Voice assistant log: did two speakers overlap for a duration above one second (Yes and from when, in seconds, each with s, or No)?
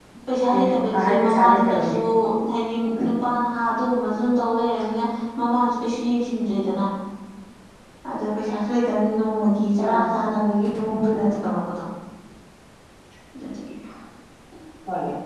Yes, from 0.6 s